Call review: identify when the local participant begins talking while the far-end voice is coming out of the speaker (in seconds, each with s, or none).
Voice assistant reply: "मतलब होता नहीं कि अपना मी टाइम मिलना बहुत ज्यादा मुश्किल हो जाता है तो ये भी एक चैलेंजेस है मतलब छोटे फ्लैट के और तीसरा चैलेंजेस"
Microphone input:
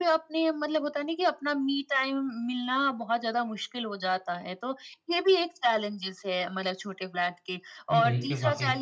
7.9 s